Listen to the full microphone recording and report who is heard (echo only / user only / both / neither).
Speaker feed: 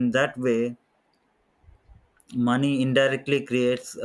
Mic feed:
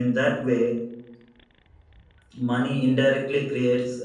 echo only